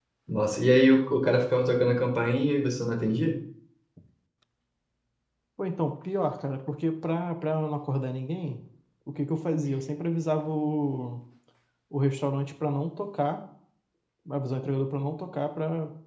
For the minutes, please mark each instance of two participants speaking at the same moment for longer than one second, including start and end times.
none

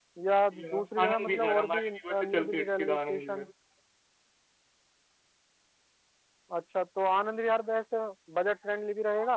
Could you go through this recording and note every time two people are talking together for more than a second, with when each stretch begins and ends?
0.6-3.5

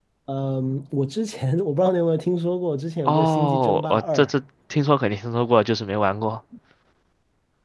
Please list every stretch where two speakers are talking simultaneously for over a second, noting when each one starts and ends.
3.0-4.2

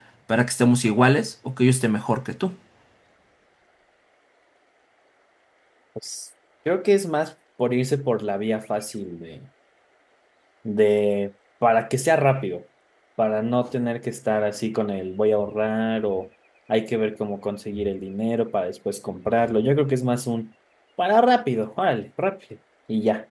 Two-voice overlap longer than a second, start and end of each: none

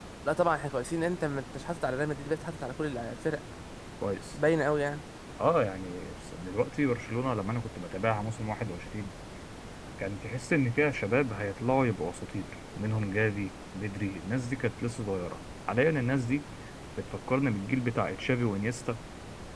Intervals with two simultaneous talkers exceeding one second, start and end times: none

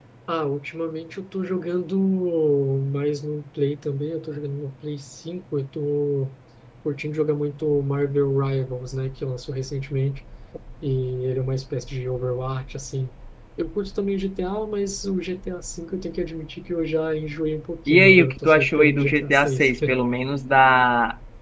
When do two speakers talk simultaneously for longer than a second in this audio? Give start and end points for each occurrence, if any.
17.9-19.7

